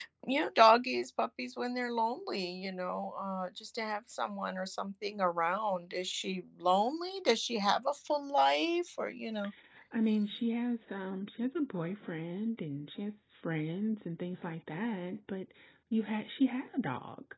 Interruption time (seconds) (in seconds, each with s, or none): none